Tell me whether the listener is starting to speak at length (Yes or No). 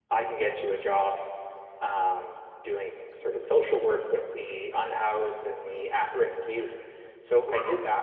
No